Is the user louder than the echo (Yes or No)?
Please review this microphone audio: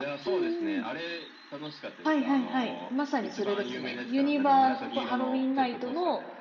Yes